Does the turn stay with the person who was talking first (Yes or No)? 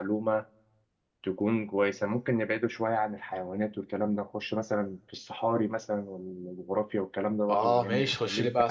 No